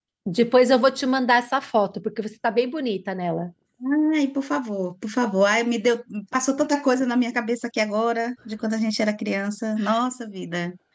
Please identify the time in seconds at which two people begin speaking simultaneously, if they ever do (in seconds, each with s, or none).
none